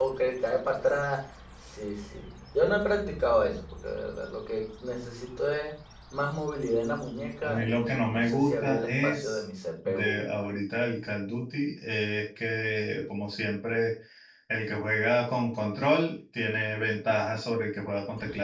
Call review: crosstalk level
present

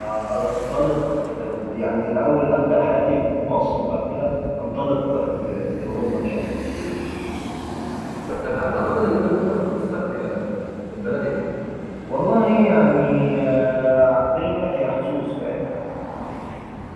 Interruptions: none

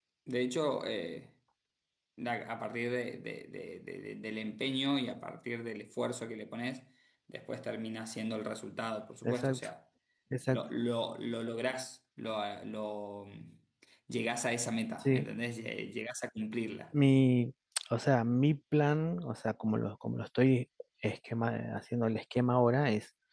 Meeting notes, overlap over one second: none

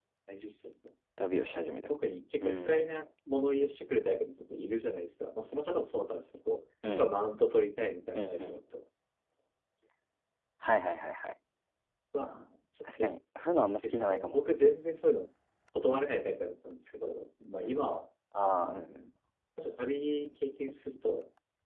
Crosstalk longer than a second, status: none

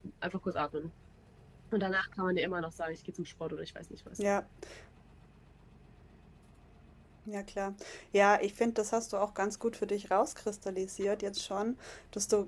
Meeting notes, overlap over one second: none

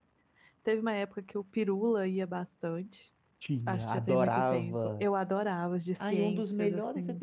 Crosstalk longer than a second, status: present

